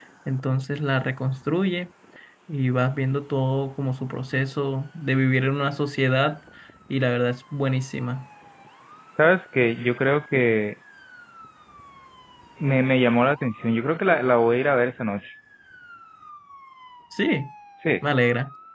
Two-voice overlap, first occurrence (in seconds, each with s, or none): none